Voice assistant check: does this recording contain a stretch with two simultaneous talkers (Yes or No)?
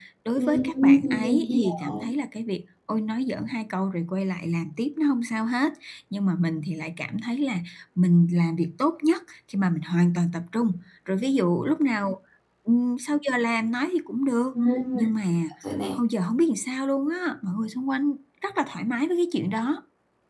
Yes